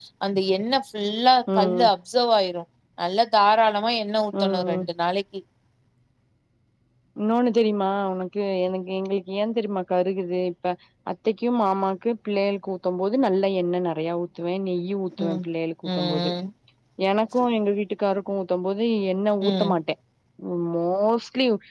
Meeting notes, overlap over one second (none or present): none